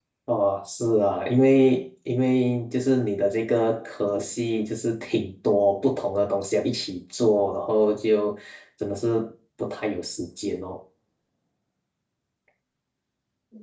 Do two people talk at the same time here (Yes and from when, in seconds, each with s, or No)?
No